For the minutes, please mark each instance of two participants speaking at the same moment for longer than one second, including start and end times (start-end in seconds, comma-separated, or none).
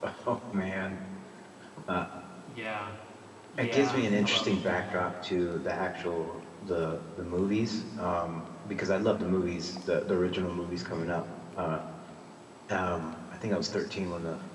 3.6-5.0